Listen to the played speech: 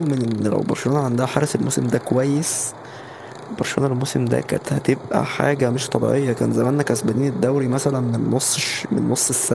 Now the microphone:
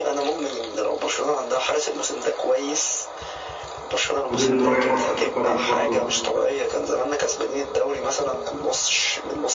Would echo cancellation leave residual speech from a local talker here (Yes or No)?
Yes